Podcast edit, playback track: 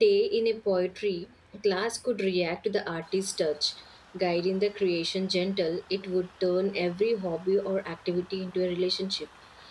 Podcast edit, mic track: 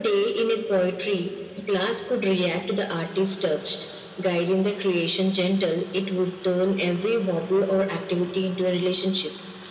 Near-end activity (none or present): none